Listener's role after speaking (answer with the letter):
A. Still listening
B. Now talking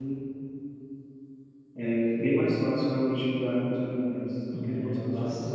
B